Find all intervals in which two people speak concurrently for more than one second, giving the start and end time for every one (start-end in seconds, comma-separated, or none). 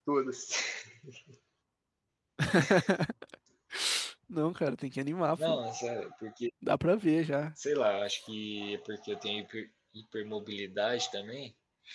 none